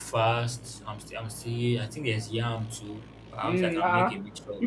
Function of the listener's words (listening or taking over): taking over